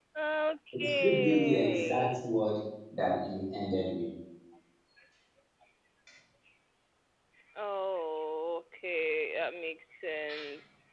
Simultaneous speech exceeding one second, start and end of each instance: 0.8-2.2

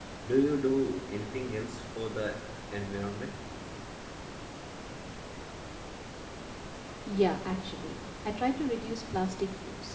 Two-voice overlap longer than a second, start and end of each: none

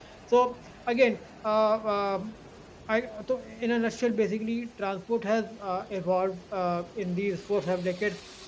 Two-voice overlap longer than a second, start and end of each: none

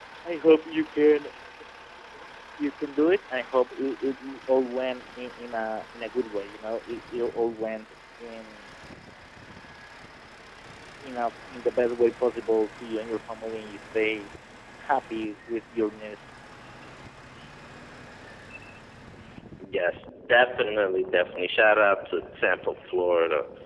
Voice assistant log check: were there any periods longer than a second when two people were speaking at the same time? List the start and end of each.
none

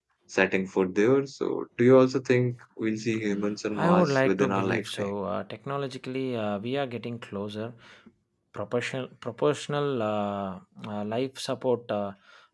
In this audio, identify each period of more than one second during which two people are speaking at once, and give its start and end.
3.8-5.1

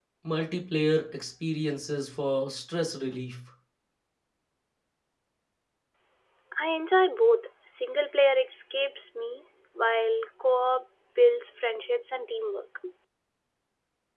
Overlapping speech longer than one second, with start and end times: none

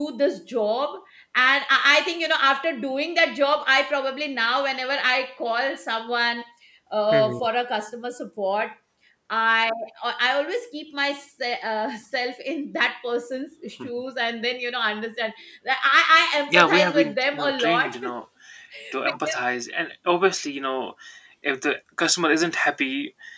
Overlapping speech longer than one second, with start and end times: 16.5-17.9

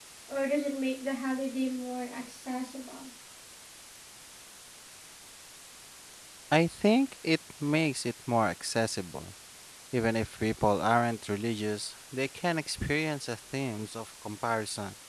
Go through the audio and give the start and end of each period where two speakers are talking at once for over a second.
none

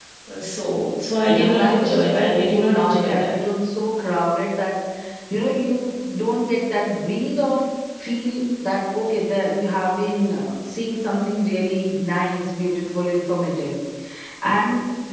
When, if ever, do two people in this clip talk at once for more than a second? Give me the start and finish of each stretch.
1.3-3.3

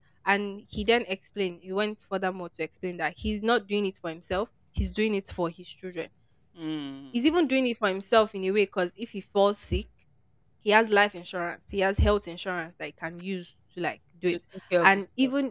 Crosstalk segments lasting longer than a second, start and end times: none

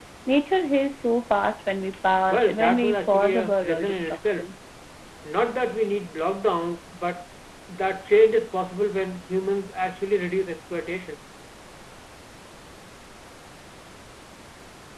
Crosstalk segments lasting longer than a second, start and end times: 2.3-4.4

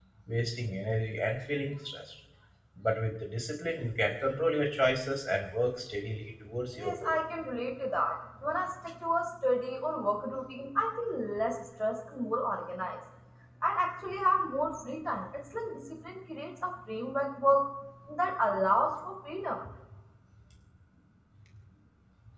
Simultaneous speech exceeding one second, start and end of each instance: none

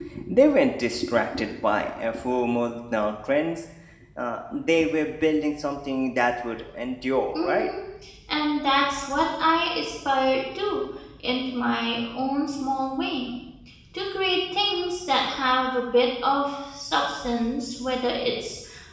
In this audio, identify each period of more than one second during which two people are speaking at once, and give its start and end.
none

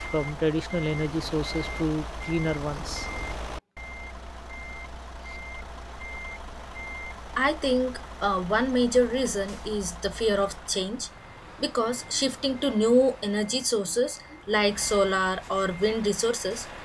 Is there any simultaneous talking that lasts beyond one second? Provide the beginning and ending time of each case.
none

